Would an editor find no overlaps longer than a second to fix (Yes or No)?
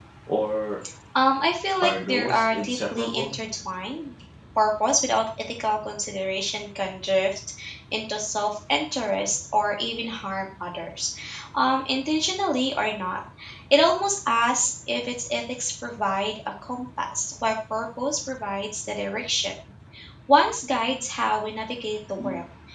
No